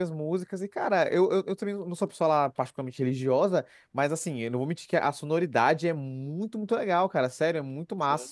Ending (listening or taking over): listening